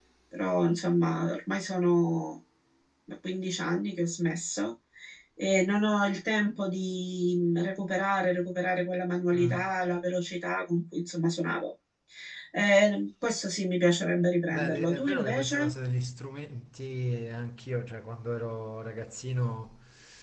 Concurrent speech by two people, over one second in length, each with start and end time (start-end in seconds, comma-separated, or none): 14.5-15.7